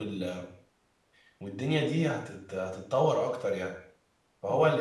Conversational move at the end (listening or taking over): listening